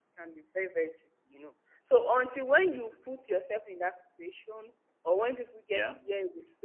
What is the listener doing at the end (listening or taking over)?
listening